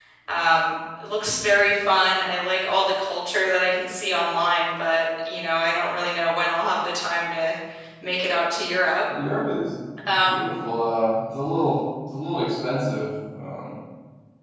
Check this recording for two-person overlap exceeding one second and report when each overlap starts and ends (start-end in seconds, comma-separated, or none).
none